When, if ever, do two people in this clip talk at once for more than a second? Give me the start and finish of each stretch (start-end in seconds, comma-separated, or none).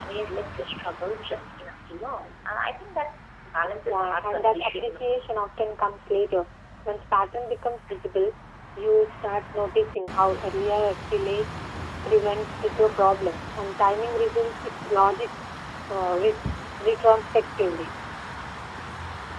3.9-5.4